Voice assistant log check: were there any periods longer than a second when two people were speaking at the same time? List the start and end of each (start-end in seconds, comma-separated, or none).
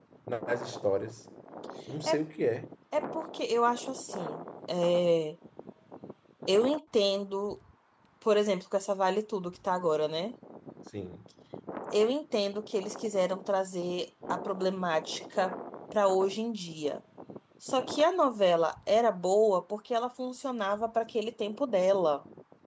none